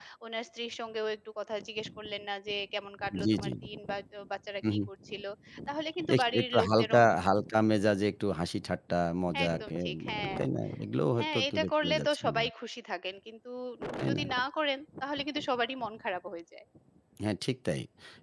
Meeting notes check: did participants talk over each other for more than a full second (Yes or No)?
Yes